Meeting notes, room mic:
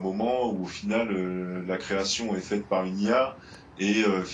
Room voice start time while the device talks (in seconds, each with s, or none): none